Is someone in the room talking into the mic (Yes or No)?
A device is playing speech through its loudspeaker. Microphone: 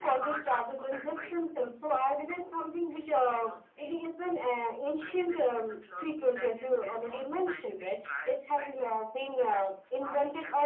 No